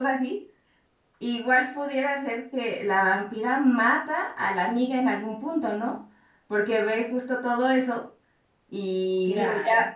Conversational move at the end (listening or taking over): listening